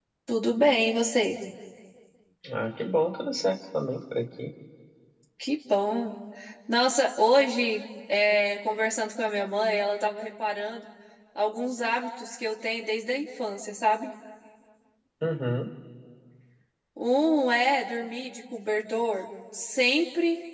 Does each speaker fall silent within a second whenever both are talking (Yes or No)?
Yes